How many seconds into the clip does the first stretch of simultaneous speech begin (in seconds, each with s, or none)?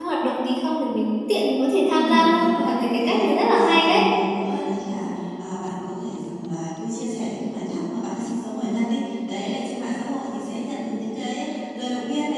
1.9 s